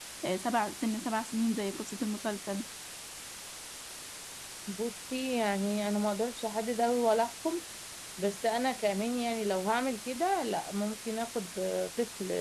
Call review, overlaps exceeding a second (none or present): none